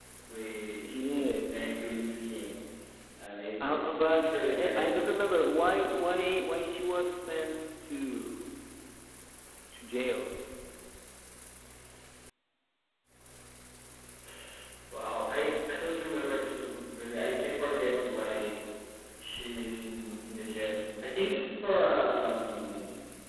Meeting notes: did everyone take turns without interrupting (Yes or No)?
No